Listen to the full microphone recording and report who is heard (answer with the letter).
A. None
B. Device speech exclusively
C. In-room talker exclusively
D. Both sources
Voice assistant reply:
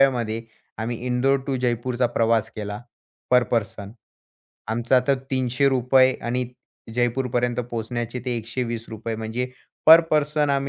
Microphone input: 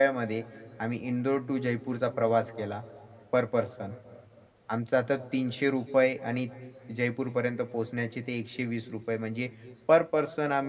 B